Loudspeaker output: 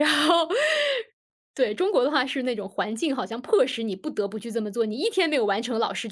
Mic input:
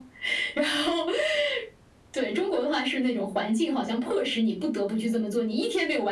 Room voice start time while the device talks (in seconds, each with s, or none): none